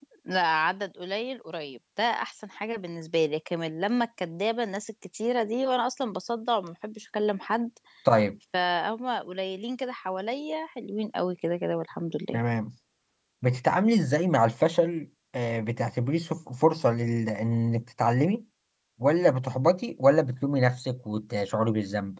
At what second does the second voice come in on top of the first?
none

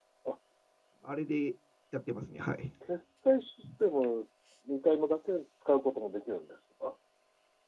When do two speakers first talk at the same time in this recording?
none

